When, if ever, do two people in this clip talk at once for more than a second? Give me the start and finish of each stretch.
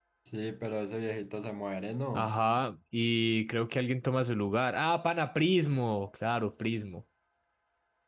none

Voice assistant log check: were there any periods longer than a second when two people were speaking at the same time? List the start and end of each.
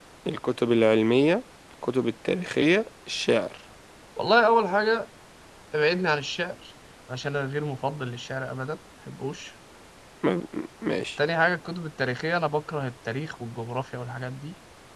none

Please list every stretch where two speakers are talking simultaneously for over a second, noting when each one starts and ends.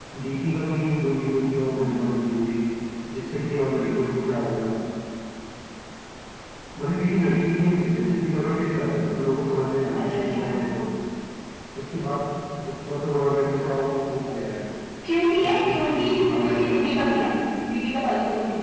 15.5-17.2

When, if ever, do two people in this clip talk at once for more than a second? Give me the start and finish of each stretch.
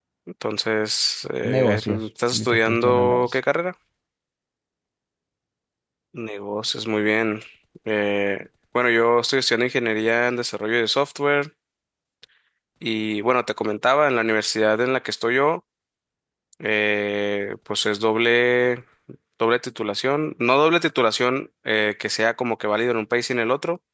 1.4-3.4

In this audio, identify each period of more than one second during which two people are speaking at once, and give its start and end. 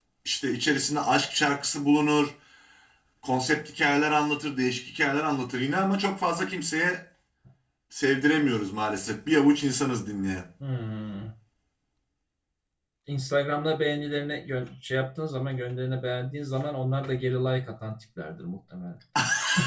none

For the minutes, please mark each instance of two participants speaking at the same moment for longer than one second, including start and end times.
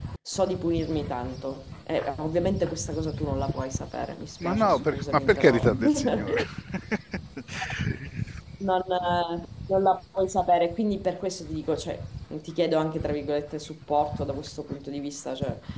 4.4-6.4

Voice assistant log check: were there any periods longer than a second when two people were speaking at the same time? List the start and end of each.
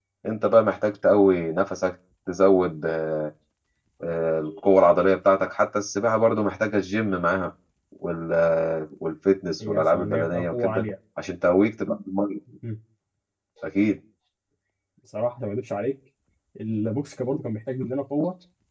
9.6-10.8

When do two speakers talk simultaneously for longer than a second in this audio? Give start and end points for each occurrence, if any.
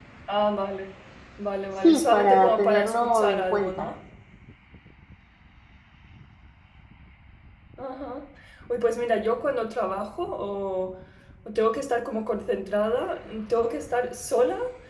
1.8-3.9

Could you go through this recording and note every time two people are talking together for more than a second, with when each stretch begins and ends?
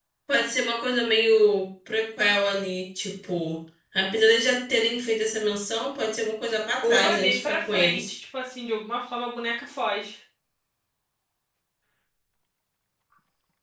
6.8-8.1

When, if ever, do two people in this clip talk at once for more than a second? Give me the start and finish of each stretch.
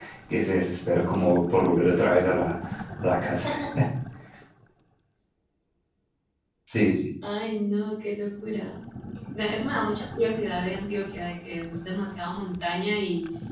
none

